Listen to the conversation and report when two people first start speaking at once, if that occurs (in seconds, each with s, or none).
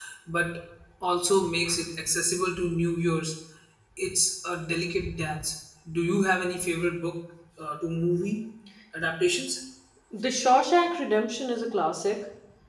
none